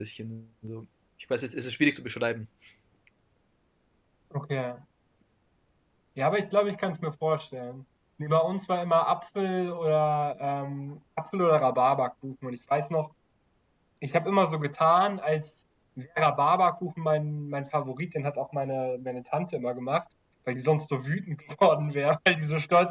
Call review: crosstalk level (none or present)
none